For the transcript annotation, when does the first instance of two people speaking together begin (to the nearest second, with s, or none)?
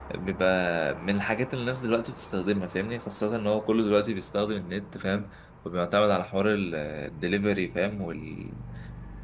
none